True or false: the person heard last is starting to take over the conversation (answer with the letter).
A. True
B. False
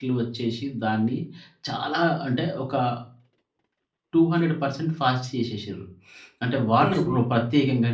B